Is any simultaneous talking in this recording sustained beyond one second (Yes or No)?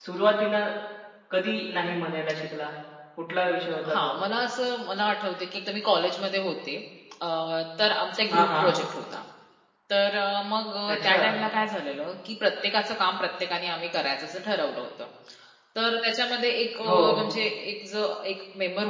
No